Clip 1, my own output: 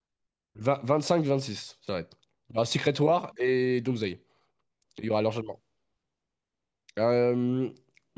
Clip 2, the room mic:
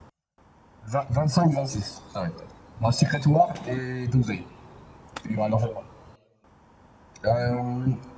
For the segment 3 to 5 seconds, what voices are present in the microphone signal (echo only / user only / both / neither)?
echo only